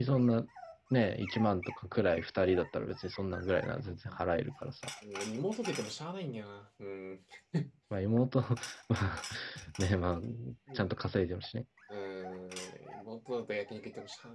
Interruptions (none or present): none